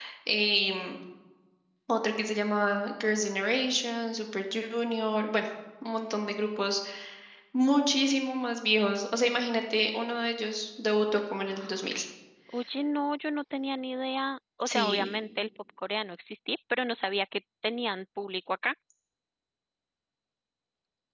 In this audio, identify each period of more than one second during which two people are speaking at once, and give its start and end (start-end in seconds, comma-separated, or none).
none